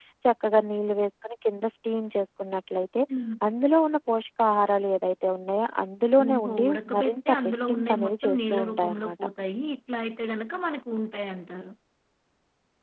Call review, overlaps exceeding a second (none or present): present